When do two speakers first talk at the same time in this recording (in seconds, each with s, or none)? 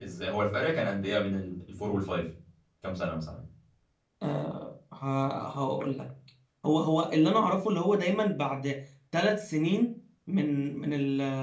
none